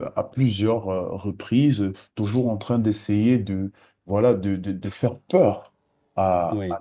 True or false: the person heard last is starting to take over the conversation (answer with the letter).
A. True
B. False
B